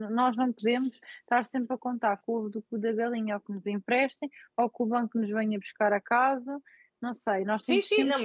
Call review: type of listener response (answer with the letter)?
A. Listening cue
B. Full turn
B